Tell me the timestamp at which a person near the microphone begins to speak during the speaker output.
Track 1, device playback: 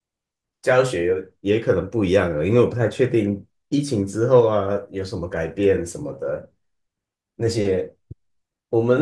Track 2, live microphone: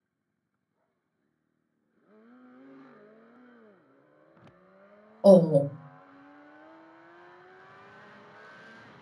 5.2 s

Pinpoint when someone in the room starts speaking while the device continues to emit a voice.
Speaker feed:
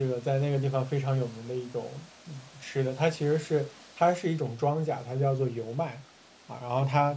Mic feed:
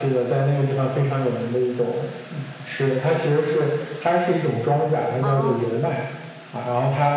5.2 s

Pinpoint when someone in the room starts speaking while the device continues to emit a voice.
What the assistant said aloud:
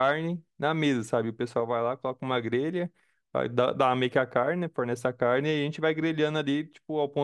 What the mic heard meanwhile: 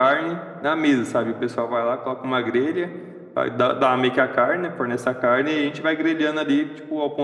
none

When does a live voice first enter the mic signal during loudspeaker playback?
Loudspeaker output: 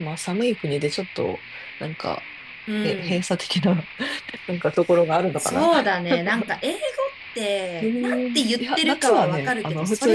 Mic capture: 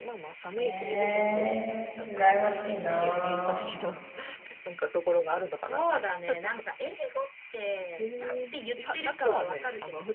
0.6 s

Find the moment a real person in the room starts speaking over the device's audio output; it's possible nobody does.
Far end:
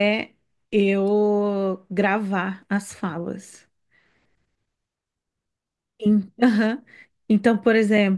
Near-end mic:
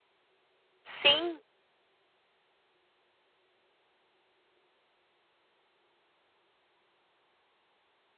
0.8 s

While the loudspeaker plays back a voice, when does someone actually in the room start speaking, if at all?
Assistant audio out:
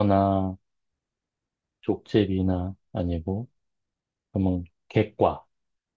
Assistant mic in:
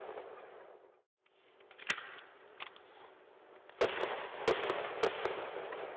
none

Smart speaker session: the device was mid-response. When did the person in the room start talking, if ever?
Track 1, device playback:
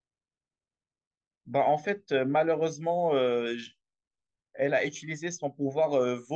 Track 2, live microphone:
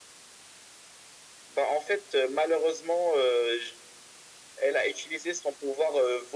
none

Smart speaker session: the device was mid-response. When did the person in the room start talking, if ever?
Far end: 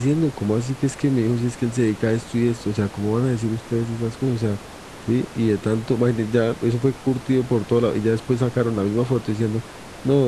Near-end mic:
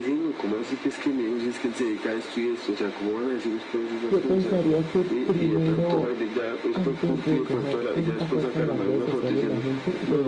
4.1 s

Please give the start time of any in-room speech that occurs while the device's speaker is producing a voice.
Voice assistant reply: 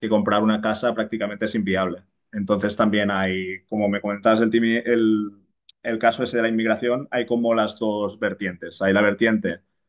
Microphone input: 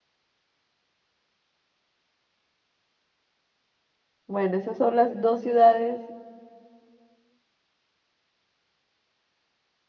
4.3 s

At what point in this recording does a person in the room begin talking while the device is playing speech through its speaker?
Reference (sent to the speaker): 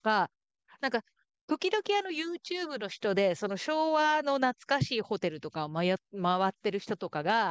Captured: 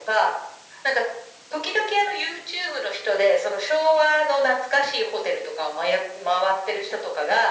none

